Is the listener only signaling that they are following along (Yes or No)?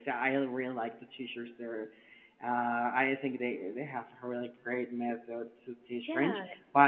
Yes